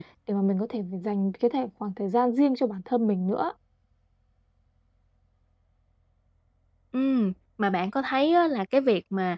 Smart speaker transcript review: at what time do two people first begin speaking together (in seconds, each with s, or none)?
none